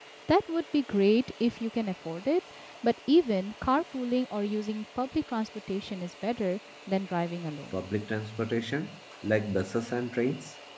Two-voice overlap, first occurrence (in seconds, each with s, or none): none